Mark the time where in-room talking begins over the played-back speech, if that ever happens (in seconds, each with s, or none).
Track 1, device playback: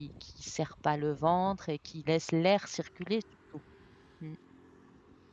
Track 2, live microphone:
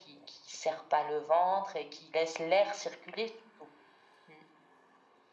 none